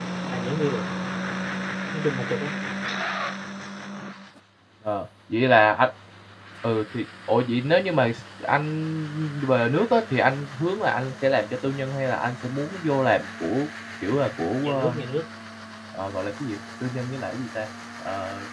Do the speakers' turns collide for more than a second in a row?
No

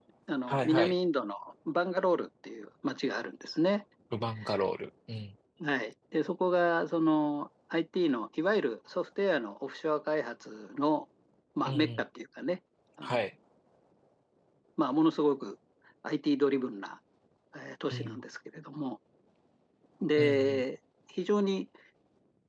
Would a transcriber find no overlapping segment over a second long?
Yes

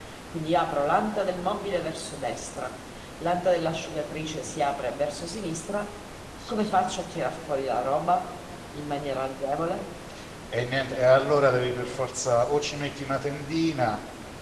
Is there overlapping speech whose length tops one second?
No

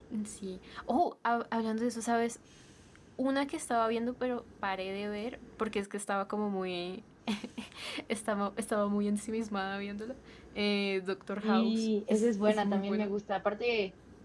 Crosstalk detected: Yes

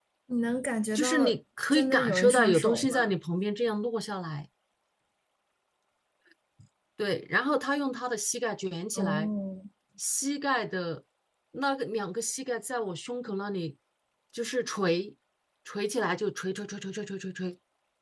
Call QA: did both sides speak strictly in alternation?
No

